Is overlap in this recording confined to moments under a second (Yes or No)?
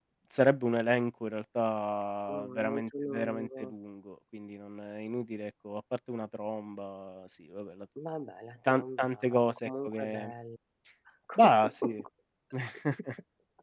No